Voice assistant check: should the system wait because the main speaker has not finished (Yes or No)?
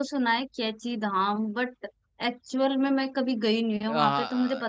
No